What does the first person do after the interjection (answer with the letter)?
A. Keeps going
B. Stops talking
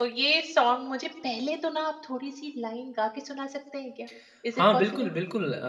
B